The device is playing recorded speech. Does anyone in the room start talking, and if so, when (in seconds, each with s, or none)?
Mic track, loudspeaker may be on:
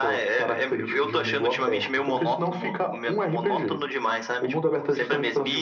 none